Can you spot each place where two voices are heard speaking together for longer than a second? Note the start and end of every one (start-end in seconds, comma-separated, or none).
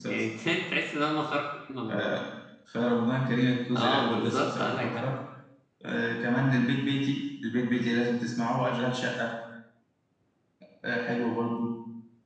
3.7-5.1